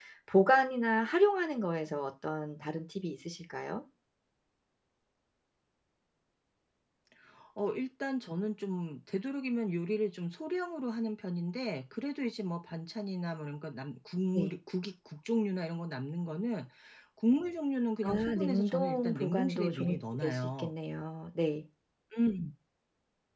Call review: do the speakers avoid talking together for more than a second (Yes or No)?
No